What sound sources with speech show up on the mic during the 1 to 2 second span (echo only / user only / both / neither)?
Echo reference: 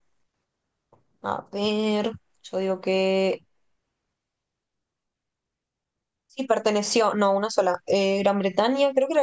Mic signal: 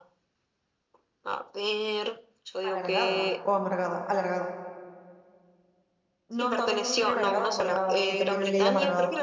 echo only